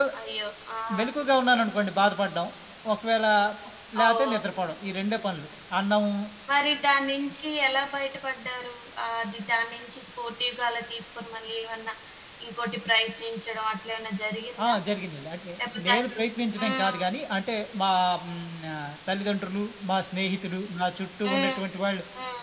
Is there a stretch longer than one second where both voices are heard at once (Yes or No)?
No